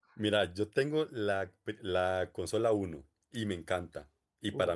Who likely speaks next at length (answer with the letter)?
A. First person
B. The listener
A